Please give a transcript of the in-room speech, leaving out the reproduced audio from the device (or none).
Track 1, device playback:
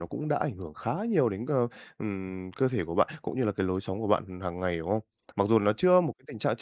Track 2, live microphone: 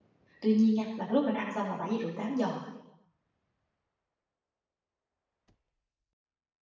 Tuy nhiên nha, là cái lúc mình ăn xong là bảy giờ rưỡi tám giờ